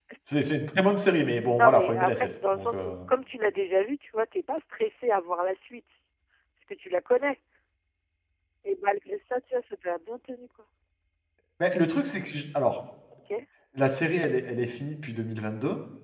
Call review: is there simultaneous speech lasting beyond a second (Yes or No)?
Yes